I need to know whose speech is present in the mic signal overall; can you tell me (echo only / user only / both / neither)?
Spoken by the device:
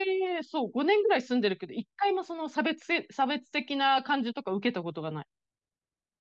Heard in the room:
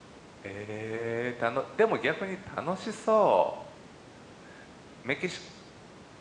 user only